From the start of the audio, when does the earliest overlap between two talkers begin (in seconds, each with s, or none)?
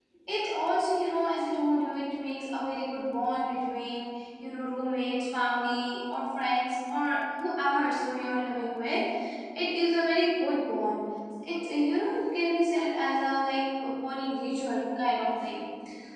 none